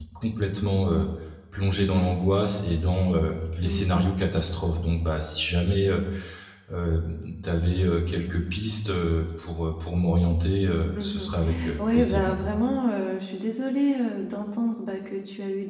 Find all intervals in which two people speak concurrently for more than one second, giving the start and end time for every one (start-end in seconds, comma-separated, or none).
10.9-12.2